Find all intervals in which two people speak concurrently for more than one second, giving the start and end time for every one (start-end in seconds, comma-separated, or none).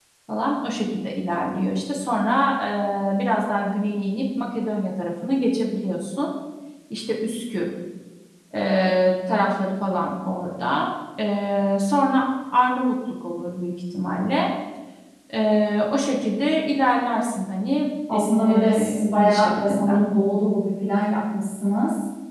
18.1-20.0